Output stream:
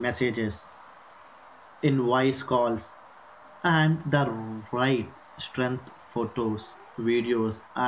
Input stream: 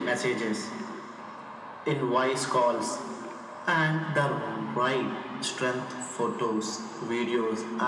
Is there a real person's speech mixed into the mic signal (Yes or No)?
No